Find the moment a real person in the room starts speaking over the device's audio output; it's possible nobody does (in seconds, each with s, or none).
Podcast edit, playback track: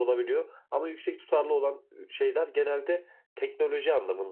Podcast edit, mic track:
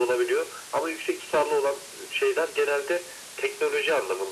none